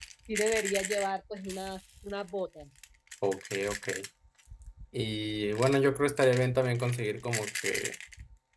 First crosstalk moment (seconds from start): none

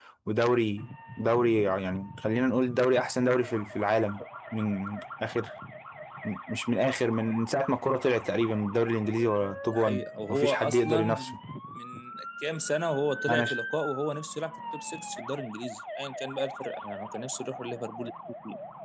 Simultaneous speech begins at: 9.7 s

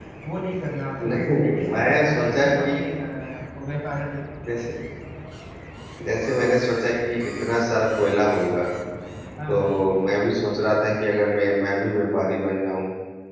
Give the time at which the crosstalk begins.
1.1 s

